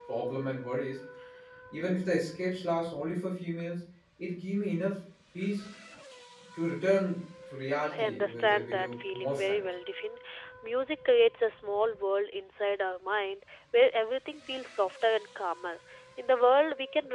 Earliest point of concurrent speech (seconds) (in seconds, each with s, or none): 7.9 s